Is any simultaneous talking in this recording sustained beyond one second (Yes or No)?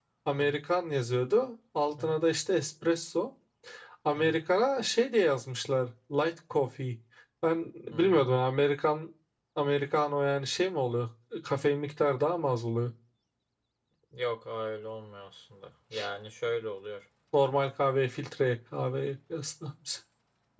No